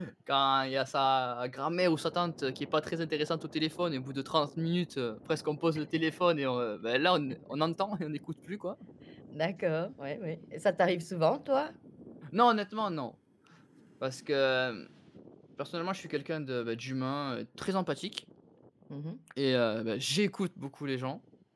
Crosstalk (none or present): none